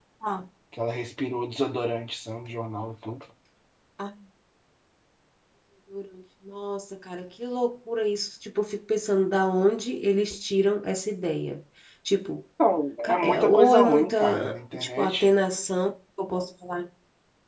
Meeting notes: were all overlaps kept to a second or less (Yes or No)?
No